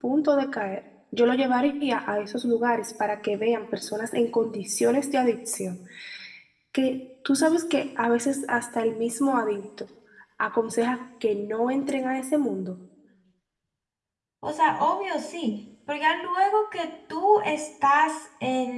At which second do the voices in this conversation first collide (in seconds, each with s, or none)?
none